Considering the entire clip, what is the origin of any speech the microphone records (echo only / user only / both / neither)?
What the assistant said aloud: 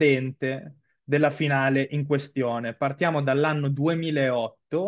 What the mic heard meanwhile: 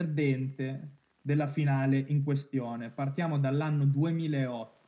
echo only